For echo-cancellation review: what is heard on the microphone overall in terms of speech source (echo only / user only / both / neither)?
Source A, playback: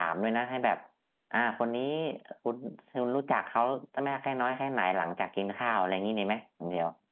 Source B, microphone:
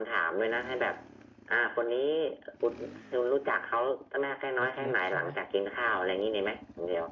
both